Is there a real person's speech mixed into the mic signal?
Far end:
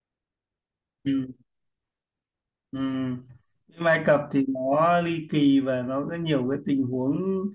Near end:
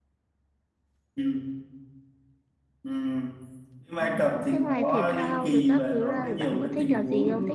Yes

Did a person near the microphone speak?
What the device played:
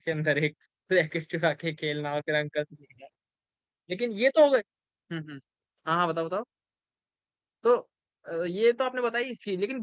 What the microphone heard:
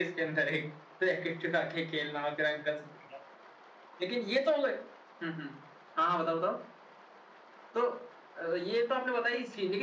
No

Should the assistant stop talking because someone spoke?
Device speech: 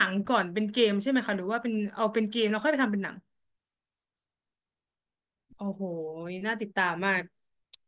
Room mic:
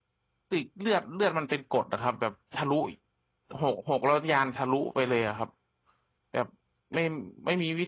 Yes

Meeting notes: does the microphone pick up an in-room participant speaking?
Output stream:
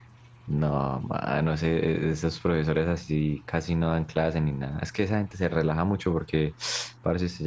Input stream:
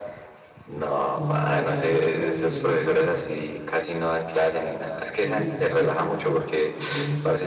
Yes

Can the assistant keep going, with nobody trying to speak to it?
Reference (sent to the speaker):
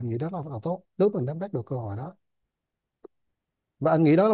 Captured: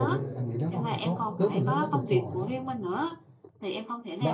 No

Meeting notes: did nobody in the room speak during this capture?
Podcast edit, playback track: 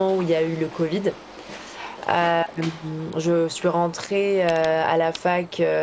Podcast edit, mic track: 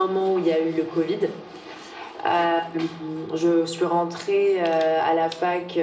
Yes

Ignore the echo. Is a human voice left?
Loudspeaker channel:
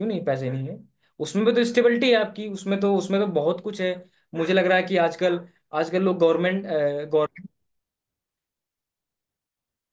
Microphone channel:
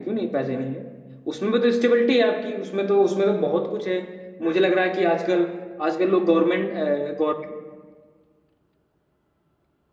No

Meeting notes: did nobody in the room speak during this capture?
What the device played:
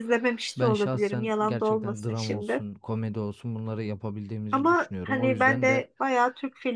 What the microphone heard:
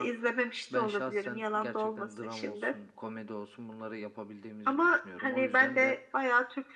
Yes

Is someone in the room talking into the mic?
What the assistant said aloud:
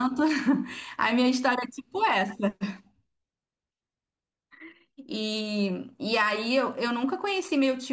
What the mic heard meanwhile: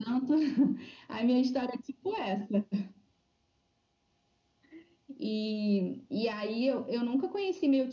No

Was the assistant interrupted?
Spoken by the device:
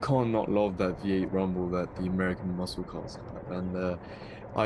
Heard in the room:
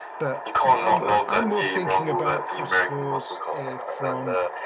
Yes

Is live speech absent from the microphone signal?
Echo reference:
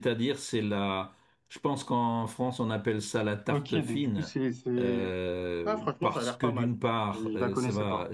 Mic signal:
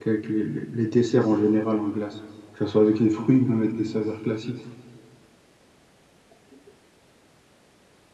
No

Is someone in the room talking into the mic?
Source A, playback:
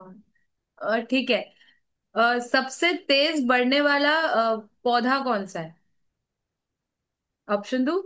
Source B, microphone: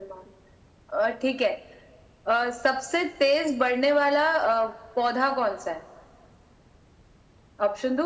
No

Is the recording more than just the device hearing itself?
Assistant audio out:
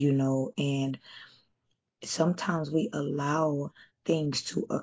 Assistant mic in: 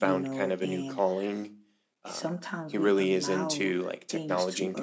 Yes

